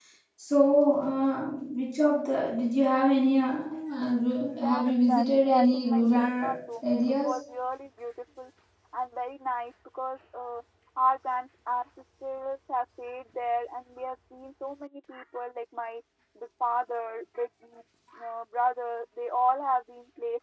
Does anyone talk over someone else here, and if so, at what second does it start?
4.6 s

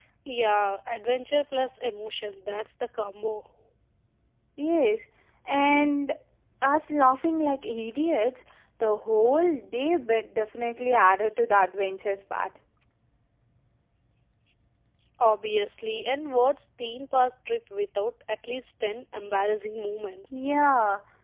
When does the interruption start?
none

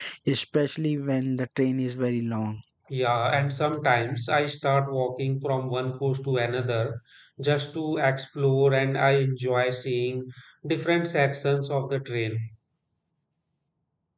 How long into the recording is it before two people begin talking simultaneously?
none

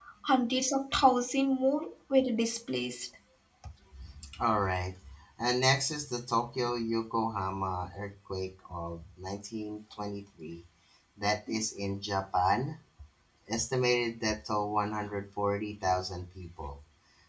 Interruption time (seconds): none

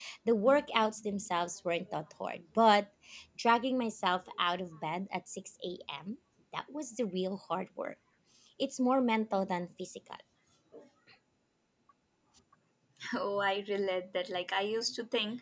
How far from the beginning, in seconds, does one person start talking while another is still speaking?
none

